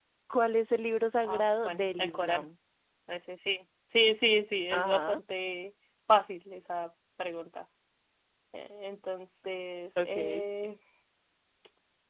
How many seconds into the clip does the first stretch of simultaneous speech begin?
1 s

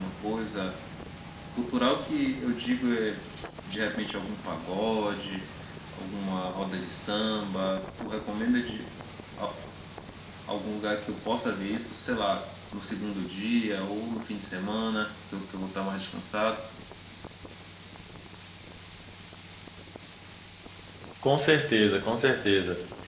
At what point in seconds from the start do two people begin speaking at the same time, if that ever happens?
none

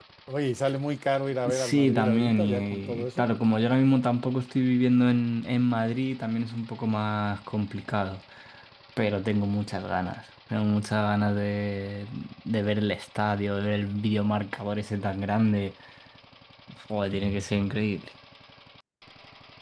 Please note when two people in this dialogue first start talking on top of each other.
1 s

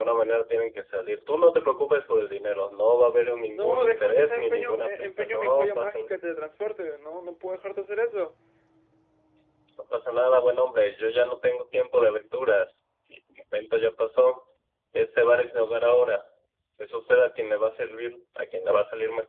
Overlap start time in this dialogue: 4 s

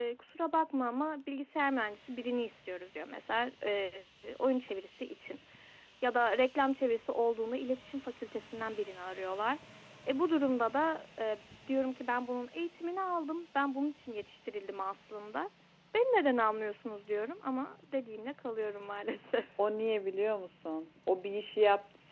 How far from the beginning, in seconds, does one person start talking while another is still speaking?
none

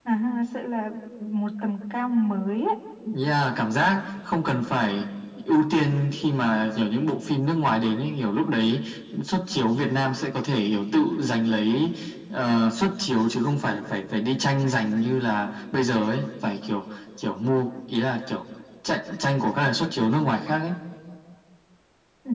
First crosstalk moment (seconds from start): none

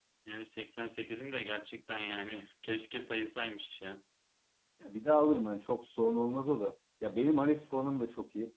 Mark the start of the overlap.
none

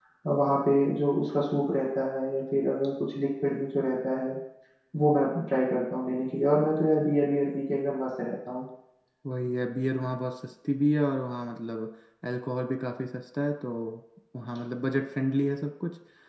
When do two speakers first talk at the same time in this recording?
none

